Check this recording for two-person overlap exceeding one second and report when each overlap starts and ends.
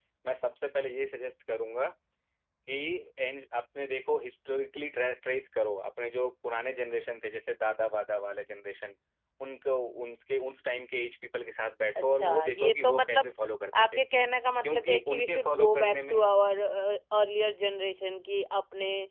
12.0-13.3, 14.6-16.2

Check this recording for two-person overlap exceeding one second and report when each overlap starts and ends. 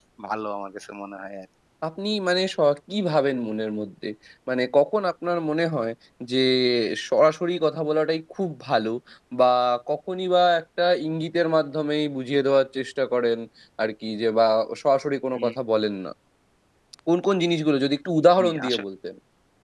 none

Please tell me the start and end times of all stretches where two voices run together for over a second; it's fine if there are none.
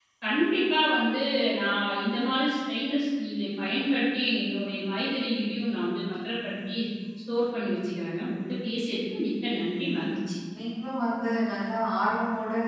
none

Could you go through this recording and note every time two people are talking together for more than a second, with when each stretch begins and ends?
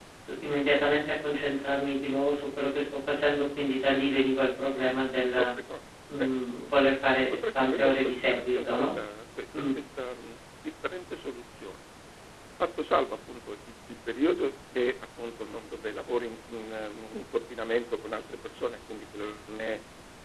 7.3-8.9

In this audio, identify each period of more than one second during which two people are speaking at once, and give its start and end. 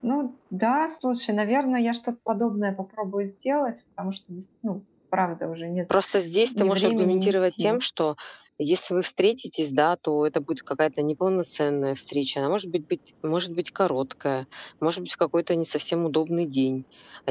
6.5-7.8

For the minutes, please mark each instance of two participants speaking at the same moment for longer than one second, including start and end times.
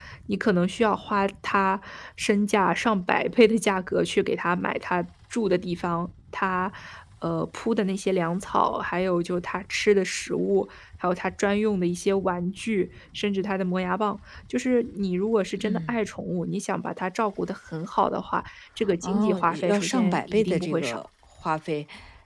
19.0-21.0

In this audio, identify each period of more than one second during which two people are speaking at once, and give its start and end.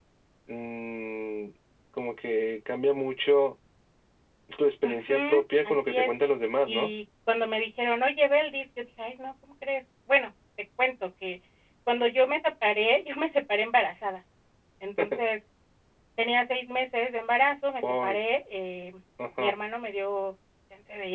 4.8-6.1

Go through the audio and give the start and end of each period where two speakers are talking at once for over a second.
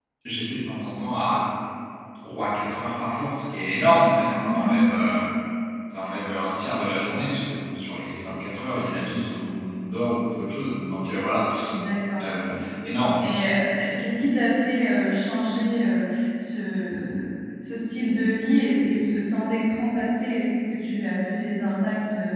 none

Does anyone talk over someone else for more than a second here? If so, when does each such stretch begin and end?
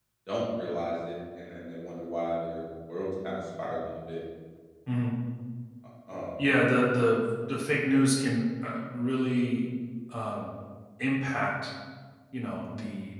none

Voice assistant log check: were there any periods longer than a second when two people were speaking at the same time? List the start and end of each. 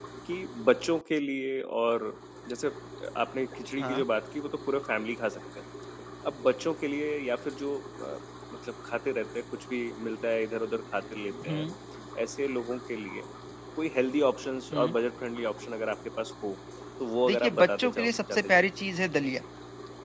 17.3-18.6

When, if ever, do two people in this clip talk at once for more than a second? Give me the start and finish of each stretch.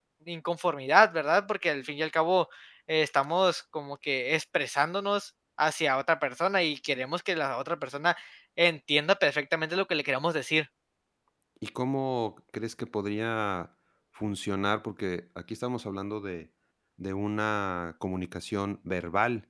none

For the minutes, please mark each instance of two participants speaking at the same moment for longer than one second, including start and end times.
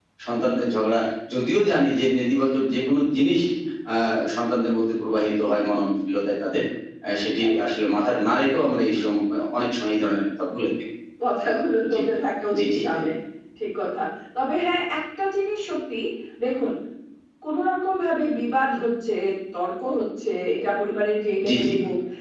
none

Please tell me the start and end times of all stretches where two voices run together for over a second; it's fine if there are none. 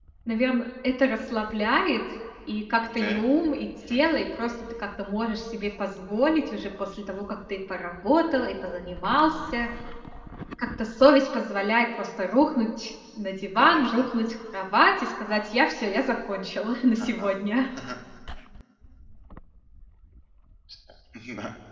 none

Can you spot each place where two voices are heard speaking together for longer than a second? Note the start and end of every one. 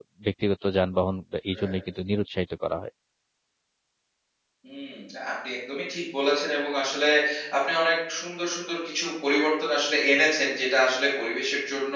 none

